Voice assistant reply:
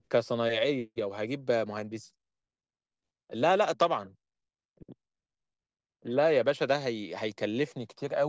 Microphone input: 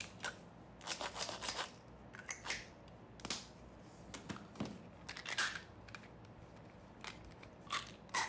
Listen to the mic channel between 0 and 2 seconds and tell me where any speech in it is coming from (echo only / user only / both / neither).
neither